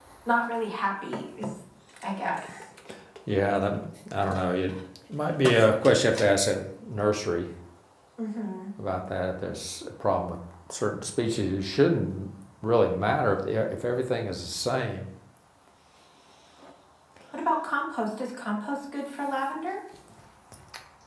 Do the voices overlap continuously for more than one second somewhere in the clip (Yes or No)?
No